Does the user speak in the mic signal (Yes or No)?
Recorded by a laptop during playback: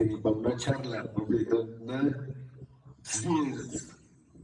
No